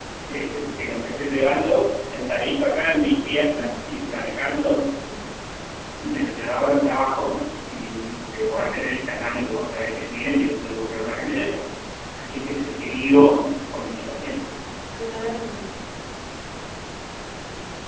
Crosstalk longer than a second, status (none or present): none